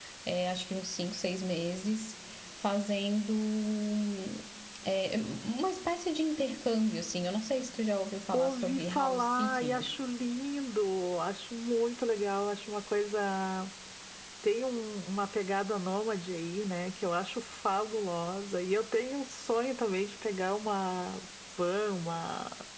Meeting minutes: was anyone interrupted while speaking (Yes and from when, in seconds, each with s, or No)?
Yes, from 8.3 s